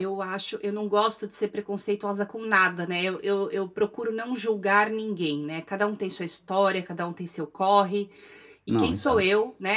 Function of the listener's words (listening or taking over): listening